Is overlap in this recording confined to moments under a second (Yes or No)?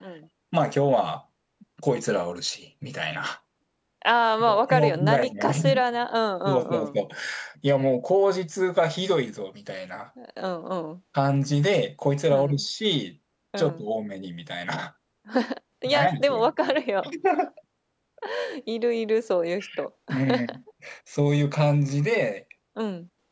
No